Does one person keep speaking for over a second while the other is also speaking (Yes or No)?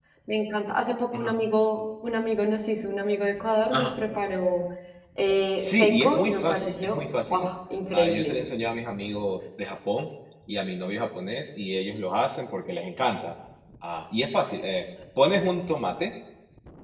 Yes